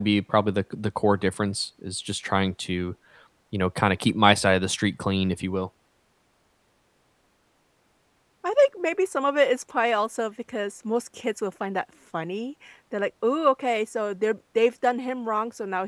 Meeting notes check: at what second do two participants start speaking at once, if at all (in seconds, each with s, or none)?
none